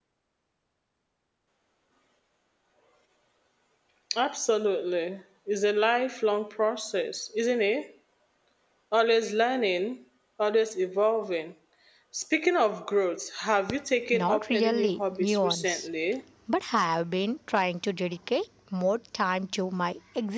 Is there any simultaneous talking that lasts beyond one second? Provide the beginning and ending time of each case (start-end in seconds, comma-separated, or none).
14.1-15.9